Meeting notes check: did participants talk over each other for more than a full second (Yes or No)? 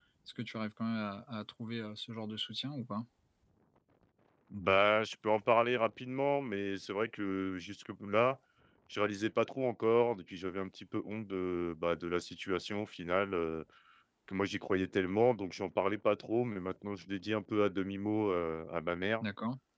No